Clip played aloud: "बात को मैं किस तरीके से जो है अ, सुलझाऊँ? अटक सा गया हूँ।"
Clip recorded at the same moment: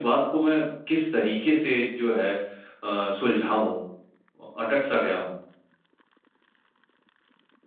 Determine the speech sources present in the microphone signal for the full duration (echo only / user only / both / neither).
echo only